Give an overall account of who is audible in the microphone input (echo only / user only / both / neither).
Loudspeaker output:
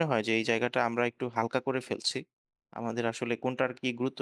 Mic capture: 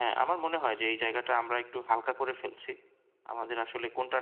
echo only